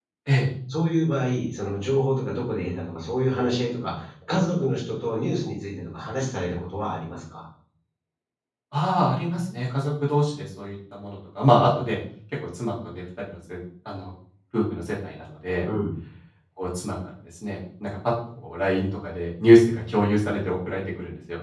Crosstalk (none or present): none